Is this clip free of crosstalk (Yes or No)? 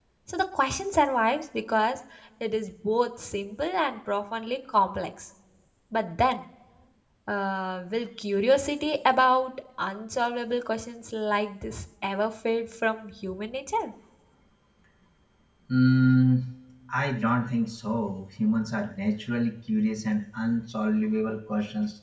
Yes